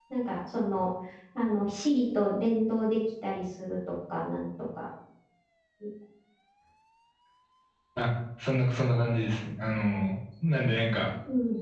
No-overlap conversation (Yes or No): Yes